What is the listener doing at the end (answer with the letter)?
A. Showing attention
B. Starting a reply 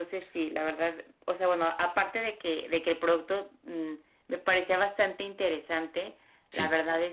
A